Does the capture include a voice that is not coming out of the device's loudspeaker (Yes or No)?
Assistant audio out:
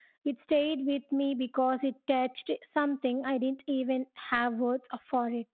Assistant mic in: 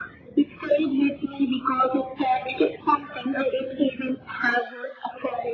No